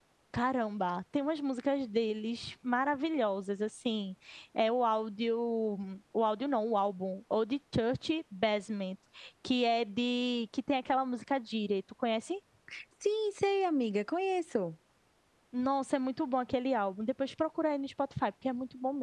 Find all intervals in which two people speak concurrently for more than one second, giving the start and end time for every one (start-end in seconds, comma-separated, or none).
none